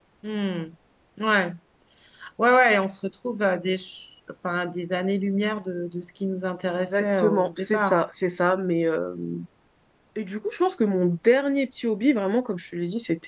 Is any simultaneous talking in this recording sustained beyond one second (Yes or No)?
Yes